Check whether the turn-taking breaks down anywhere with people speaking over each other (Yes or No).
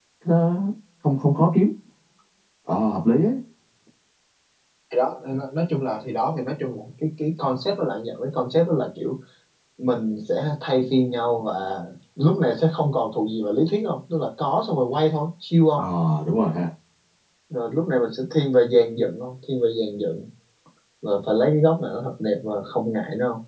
No